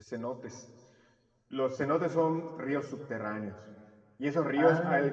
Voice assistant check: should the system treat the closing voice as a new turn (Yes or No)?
No